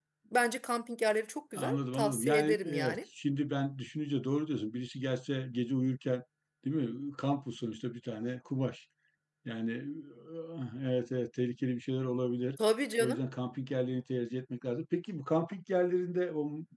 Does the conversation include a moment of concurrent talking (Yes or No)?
Yes